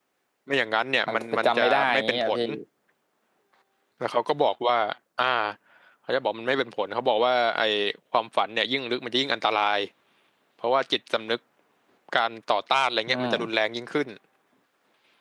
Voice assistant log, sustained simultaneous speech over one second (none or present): present